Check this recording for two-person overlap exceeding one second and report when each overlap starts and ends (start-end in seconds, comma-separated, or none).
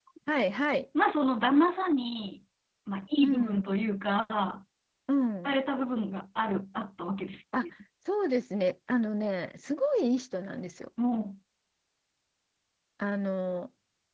none